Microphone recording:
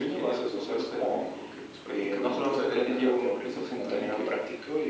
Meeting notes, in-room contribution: none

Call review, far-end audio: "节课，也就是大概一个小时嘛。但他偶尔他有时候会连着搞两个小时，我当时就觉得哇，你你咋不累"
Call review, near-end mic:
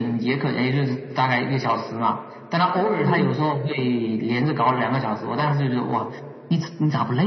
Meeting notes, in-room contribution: present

